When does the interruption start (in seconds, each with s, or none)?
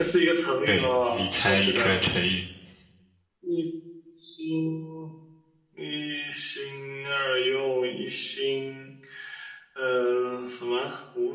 0.7 s